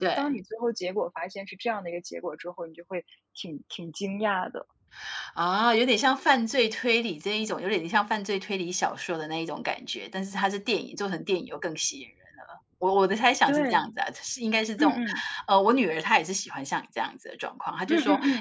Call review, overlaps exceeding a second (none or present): none